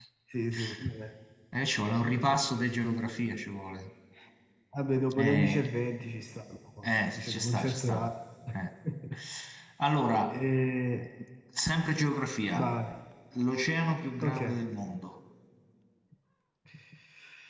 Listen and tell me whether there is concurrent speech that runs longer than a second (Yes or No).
Yes